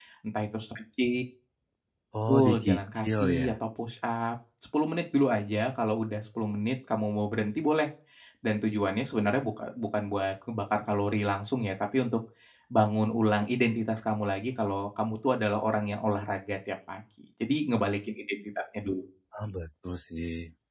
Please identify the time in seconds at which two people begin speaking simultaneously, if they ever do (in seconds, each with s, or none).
2.3 s